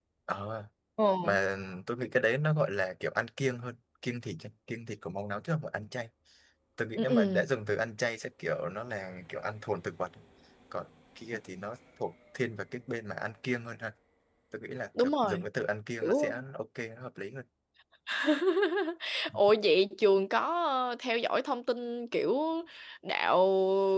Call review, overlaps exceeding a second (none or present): none